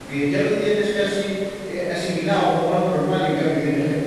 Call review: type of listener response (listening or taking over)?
listening